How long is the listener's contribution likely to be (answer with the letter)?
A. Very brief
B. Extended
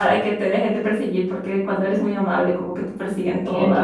B